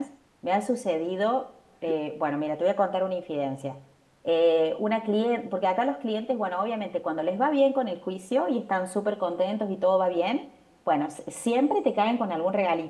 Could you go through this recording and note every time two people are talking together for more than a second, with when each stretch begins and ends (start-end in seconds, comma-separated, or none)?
none